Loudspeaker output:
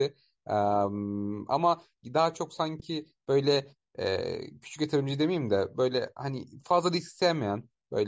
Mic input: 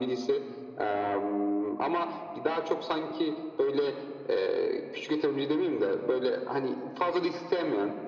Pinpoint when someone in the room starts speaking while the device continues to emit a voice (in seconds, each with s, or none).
none